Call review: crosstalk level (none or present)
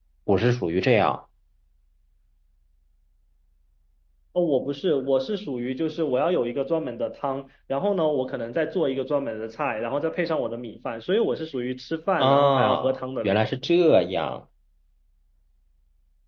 present